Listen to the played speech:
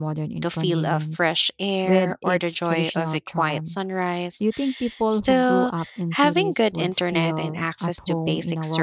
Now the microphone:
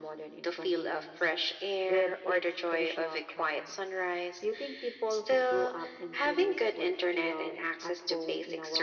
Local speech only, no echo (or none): none